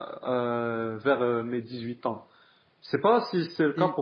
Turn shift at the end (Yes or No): No